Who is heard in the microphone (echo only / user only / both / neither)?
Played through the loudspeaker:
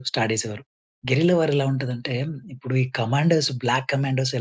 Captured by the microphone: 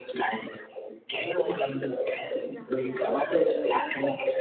both